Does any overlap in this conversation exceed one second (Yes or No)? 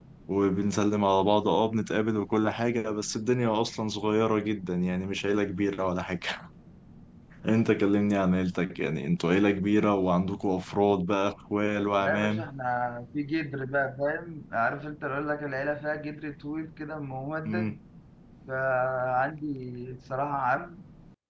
No